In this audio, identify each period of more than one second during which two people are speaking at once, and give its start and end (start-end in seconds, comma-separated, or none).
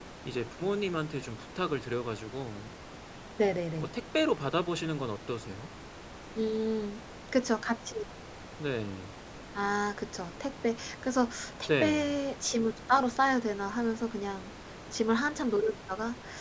none